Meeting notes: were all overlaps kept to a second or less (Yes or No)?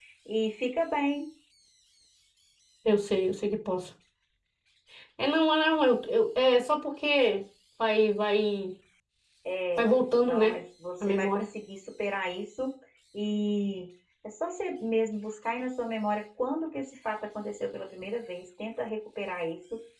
Yes